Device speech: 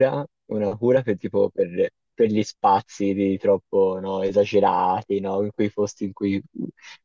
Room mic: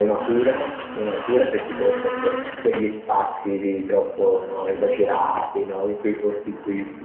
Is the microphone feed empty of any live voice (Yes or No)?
Yes